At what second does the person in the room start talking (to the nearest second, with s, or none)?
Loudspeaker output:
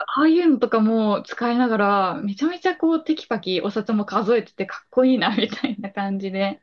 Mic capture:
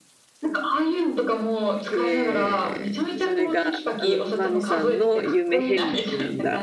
2 s